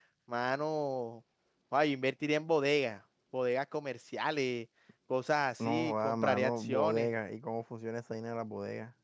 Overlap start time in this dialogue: 5.6 s

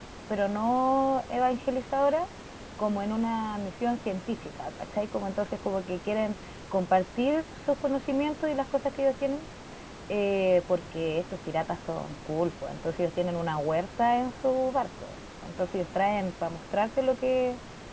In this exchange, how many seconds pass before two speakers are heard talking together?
none

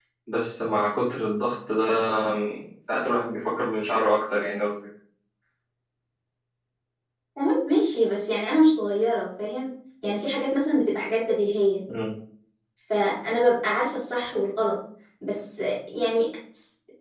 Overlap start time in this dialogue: none

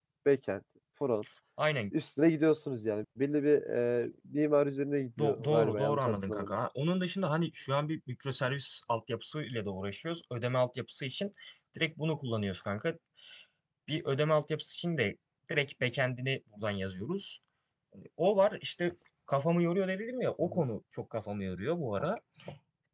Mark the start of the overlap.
5.2 s

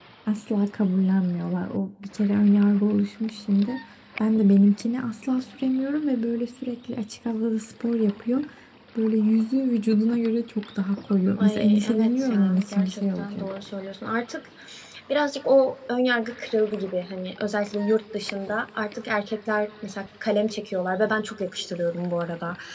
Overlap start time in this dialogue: 11.4 s

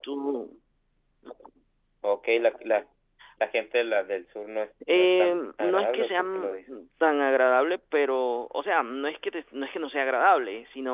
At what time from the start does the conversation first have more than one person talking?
4.8 s

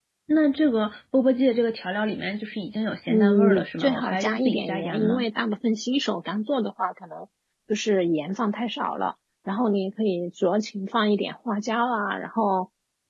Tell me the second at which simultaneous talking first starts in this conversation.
3.1 s

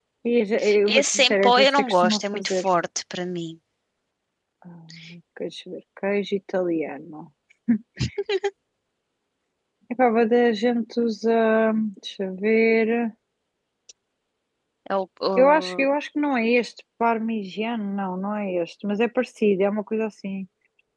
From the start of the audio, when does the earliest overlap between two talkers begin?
0.9 s

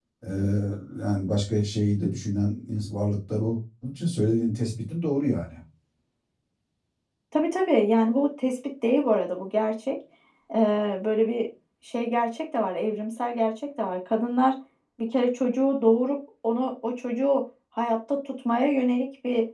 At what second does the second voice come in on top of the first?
none

